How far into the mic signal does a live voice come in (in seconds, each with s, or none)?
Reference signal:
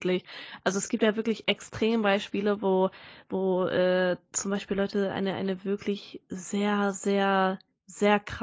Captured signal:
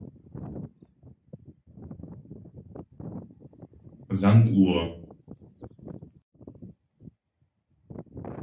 4.1 s